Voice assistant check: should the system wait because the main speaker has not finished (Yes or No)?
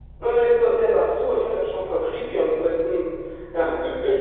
Yes